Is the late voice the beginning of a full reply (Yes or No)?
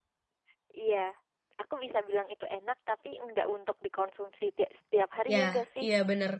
Yes